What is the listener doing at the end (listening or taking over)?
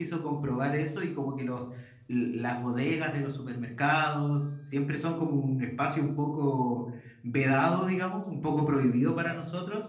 listening